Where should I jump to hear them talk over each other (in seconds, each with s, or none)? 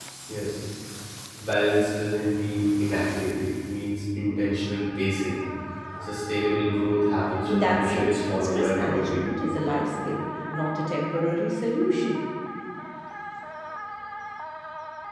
7.5 s